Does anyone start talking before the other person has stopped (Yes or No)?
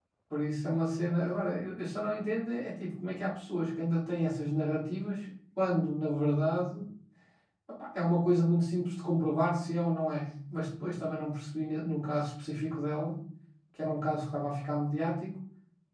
No